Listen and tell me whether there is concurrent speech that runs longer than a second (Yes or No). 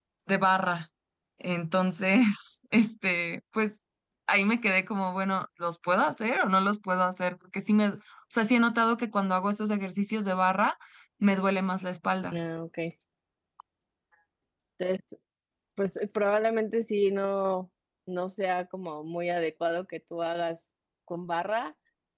No